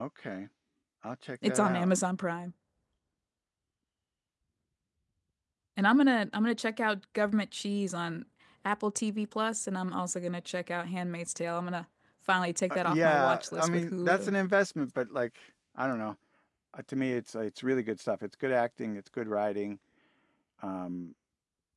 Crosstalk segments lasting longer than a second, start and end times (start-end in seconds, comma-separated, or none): 12.7-14.3